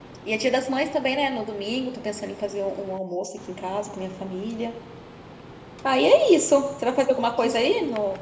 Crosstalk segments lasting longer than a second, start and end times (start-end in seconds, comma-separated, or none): none